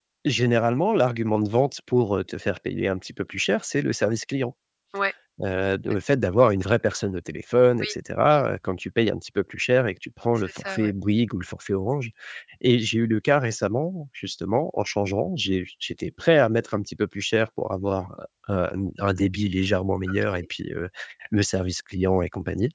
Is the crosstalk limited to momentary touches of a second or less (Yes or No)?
Yes